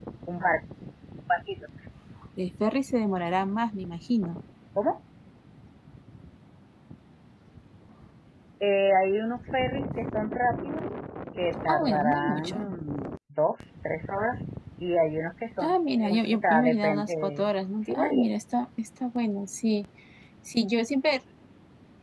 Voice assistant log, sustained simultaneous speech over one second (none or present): present